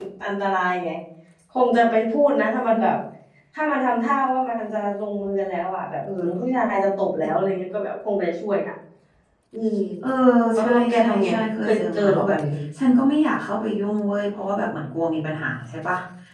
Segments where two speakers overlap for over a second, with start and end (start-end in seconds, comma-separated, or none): 10.6-12.4